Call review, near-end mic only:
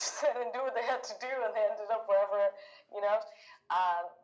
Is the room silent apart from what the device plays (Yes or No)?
Yes